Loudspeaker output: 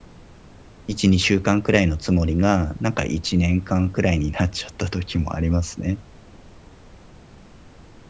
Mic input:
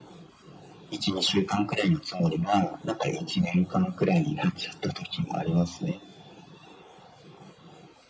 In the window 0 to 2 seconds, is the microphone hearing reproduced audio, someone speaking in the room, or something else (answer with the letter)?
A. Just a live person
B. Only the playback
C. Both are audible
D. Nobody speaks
B